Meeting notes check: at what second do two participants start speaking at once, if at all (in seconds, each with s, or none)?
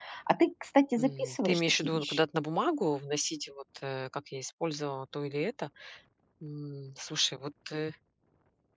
1.0 s